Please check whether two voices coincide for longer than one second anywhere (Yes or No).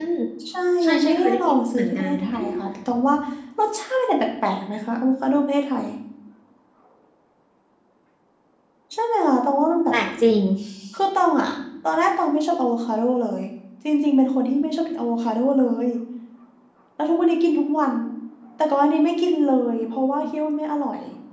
Yes